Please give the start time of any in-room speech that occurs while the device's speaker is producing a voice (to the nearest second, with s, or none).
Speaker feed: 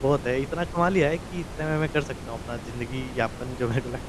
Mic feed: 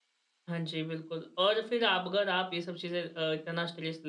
0 s